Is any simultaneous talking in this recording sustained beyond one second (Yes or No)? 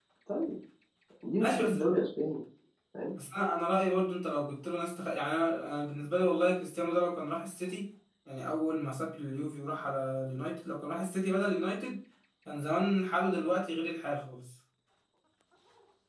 No